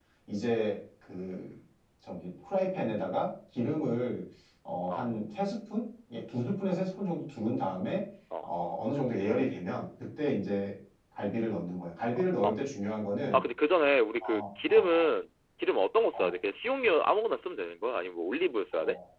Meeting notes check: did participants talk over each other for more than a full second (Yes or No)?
No